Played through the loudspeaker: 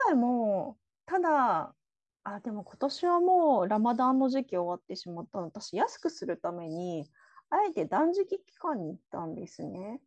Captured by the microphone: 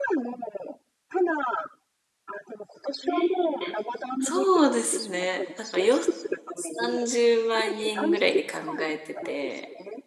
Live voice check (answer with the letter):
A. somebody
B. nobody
A